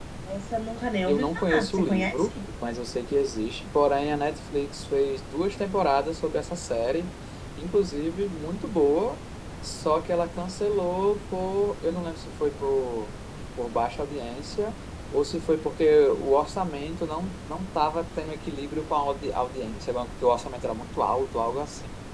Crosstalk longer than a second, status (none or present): present